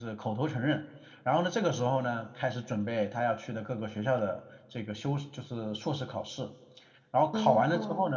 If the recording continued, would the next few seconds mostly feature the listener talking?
No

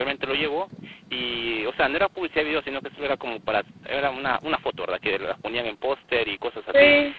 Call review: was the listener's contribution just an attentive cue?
Yes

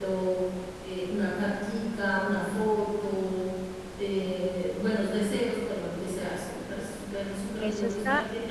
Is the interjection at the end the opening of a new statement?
Yes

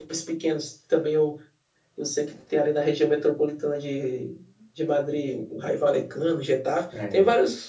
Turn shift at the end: No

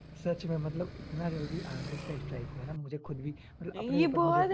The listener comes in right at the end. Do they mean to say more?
Yes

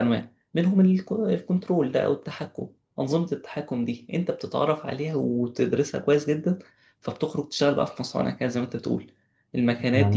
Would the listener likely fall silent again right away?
Yes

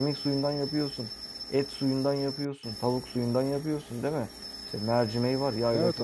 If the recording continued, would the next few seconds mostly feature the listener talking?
No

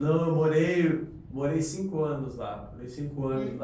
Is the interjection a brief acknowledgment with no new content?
Yes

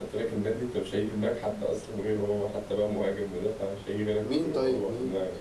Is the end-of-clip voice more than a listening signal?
Yes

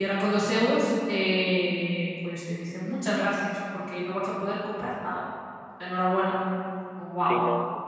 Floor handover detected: Yes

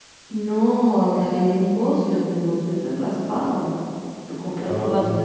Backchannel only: Yes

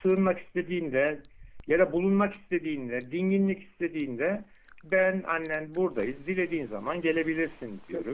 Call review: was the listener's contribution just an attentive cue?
Yes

